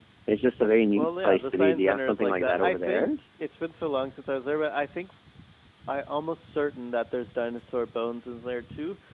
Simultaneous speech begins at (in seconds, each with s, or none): 0.9 s